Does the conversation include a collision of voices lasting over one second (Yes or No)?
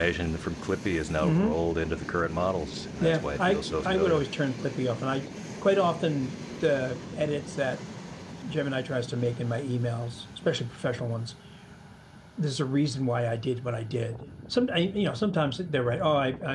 Yes